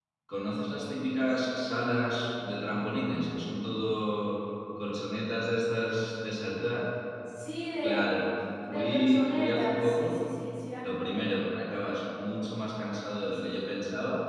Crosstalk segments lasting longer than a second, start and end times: 8.7-10.3

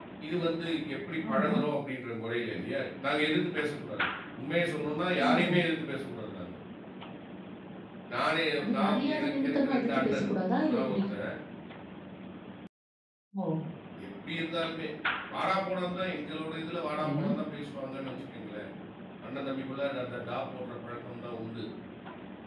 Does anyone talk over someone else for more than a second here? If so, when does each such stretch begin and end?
8.6-10.3

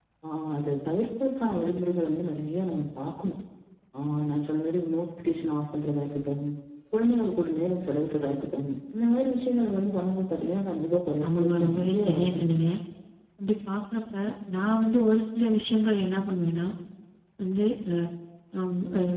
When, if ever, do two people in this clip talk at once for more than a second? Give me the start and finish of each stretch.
11.2-12.4

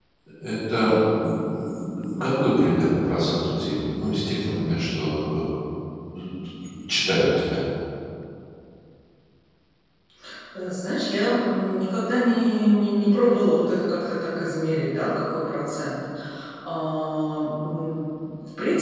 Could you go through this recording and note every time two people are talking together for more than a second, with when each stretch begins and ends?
none

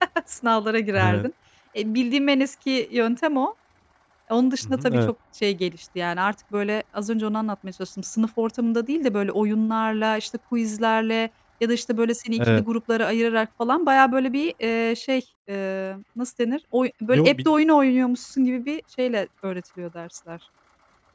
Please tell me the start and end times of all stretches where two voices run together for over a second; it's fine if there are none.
none

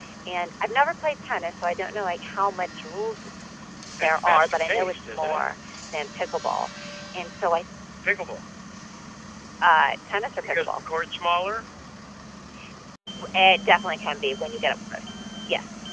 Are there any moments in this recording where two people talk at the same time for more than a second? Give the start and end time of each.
4.0-5.4

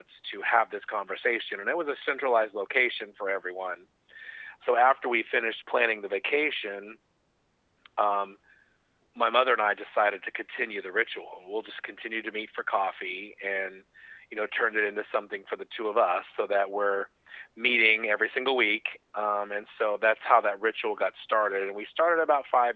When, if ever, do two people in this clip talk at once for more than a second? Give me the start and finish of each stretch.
none

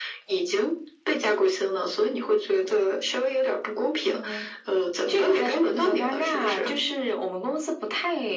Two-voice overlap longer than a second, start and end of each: 5.1-6.7

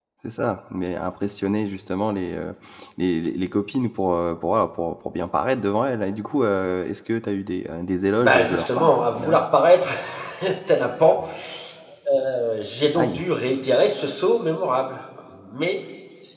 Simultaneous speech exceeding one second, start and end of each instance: 8.2-9.5

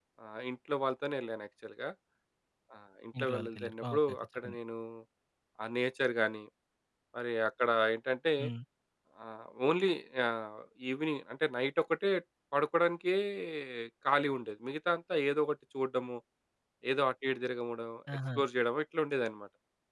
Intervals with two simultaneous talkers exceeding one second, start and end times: 3.2-4.5

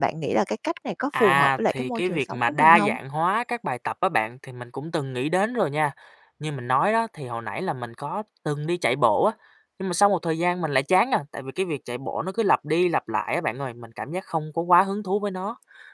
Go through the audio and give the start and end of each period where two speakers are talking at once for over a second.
1.2-3.0

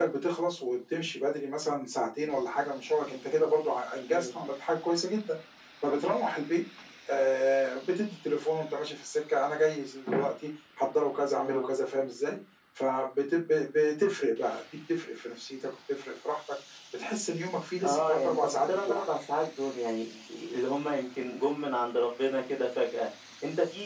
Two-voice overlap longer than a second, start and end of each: 17.8-19.0

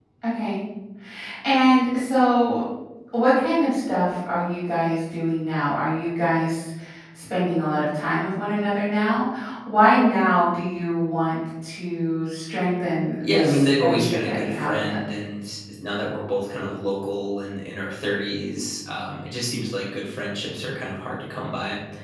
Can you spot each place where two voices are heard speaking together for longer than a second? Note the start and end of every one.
13.2-15.0

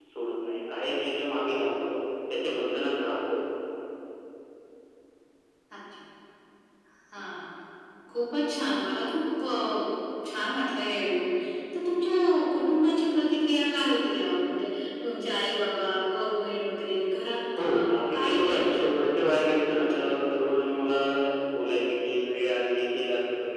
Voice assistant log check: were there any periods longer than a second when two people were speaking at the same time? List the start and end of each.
17.6-20.2

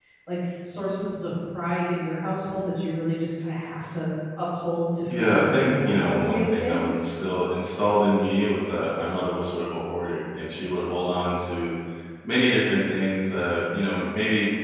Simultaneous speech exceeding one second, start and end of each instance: 5.2-6.8

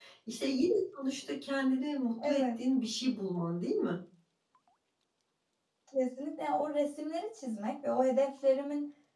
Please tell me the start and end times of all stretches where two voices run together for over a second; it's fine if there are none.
none

